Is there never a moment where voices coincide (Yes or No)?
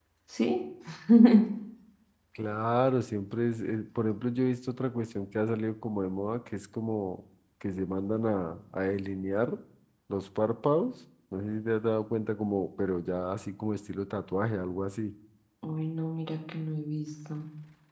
Yes